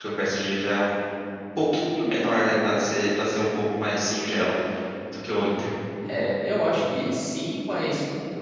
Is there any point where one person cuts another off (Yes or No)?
No